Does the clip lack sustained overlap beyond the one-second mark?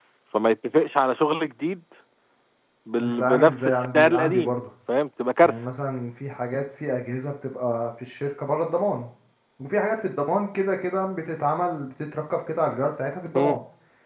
No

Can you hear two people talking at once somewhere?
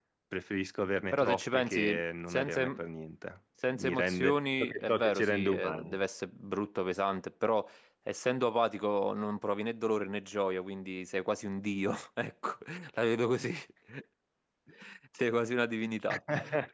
Yes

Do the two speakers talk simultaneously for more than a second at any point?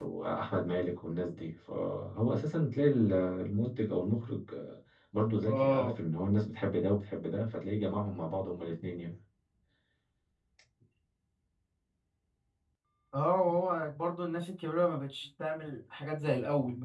No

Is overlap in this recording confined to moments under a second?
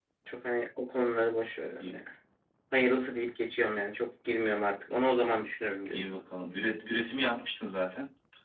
Yes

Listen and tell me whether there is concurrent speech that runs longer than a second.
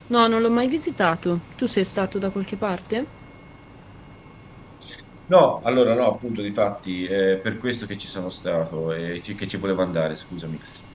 No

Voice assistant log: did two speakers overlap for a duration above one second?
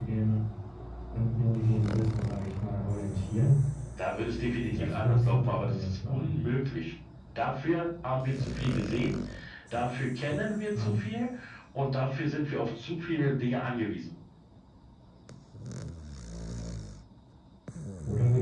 Yes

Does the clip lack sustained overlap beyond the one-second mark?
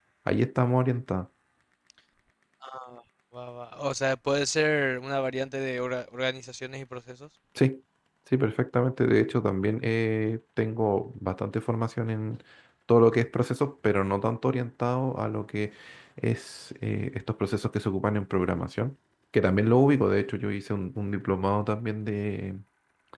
Yes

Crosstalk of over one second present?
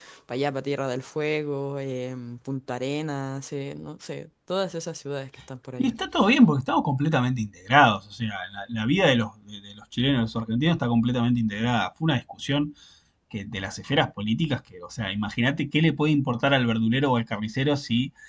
No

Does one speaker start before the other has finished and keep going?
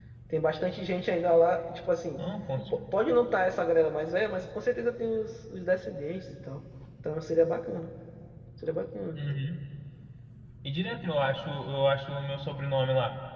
No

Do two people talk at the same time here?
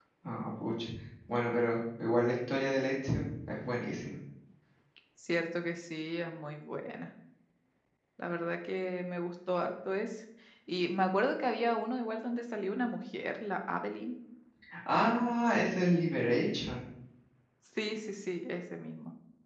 No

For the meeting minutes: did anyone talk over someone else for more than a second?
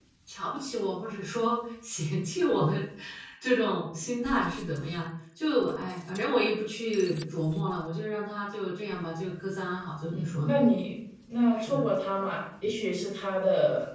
No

